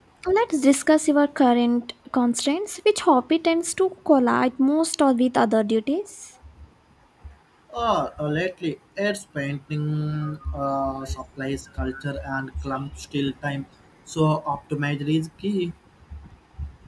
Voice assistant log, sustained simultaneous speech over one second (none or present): none